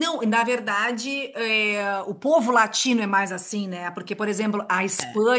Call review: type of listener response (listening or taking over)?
listening